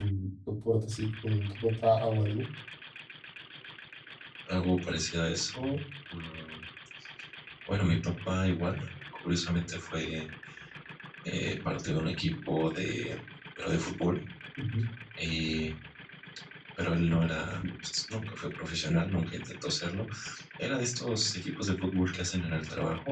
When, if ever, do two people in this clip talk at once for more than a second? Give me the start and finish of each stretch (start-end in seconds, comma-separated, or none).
none